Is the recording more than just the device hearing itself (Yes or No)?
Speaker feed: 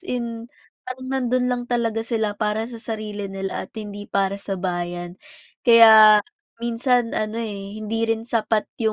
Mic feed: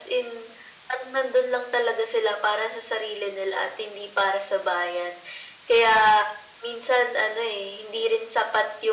No